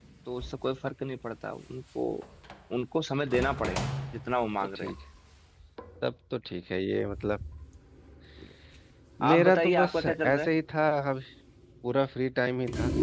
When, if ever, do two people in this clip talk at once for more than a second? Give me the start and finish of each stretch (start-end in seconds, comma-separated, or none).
9.3-10.5